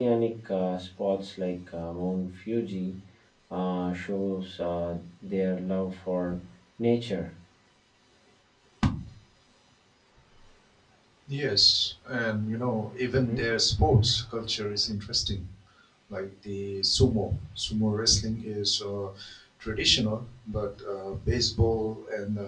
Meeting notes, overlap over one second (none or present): none